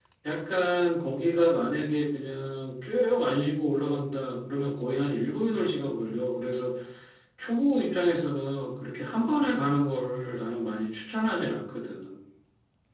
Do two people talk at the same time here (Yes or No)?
No